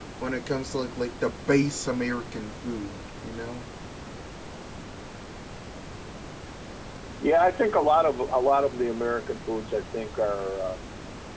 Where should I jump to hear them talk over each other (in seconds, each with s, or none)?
none